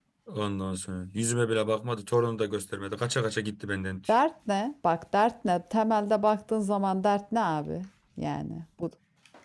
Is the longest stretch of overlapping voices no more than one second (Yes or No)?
Yes